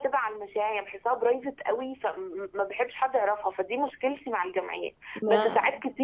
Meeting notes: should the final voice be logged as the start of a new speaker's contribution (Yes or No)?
No